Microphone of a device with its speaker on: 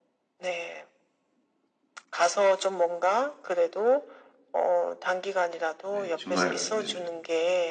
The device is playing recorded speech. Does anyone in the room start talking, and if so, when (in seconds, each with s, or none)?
5.9 s